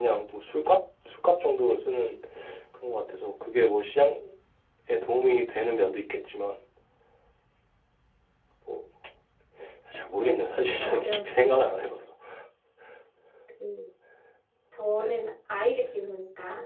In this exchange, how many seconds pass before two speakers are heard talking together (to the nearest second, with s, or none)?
10 s